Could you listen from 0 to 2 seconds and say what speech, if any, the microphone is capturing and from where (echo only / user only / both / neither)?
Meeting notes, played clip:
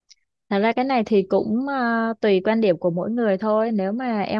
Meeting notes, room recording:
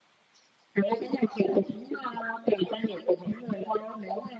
echo only